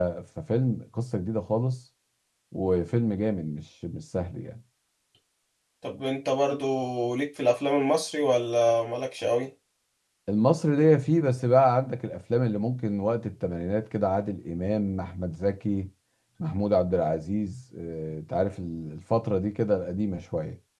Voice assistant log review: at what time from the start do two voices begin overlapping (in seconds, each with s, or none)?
none